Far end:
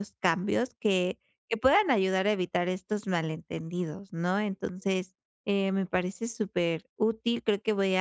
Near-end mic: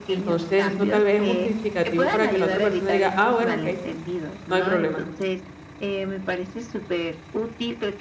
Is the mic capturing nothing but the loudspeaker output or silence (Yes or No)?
No